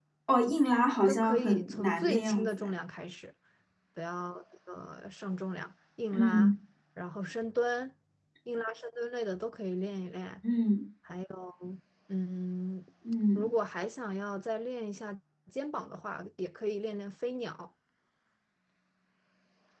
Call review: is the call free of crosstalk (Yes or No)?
No